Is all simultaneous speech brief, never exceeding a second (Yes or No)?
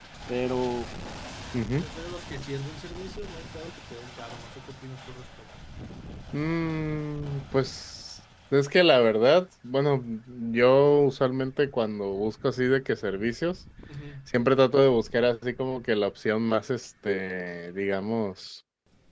Yes